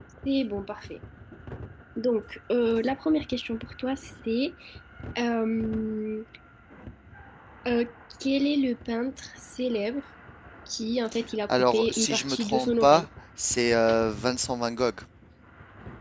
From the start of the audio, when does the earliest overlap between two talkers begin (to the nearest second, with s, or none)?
11 s